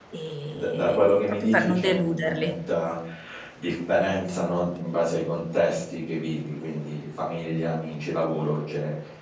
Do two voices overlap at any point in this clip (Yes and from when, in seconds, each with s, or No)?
Yes, from 0.5 s